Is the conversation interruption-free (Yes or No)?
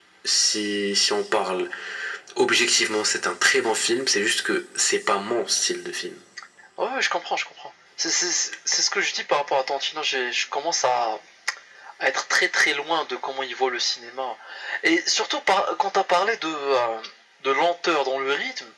Yes